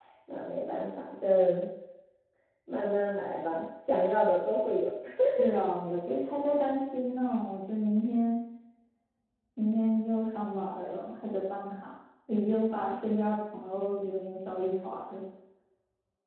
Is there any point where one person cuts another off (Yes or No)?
No